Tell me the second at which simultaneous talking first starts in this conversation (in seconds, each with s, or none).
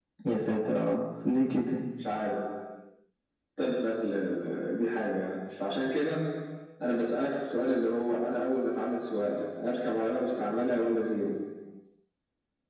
none